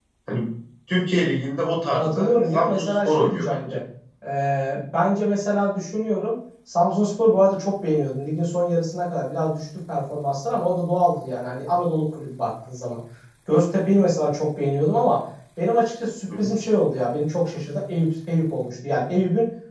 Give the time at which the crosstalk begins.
1.9 s

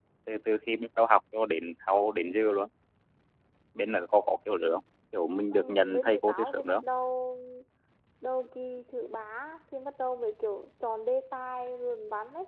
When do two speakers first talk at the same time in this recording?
5.5 s

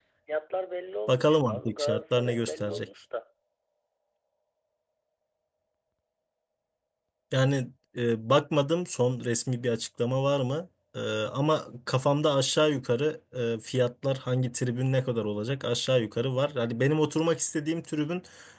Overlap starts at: 1.1 s

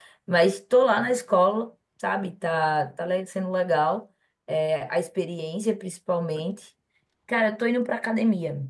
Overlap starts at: none

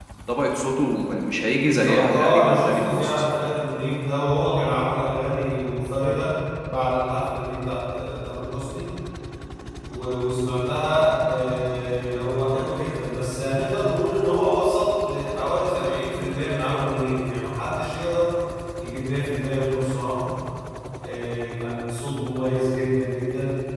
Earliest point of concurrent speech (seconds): 1.6 s

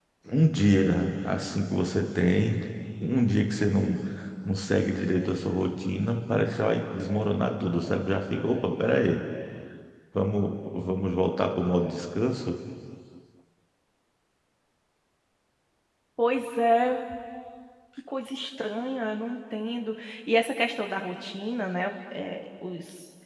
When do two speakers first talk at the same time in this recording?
none

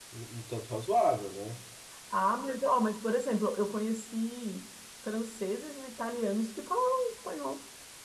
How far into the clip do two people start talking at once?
none

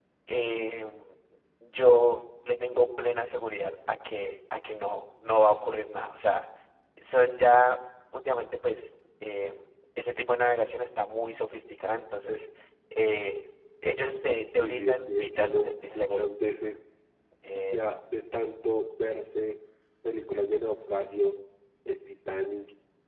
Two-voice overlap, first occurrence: 14.5 s

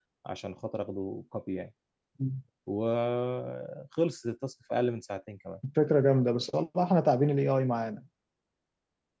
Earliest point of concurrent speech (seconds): none

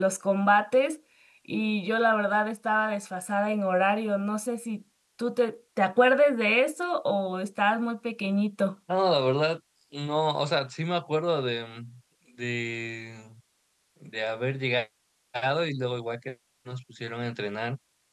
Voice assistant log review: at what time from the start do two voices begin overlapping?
none

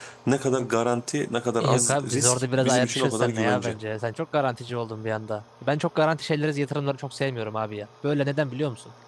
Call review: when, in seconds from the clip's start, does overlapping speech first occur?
1.6 s

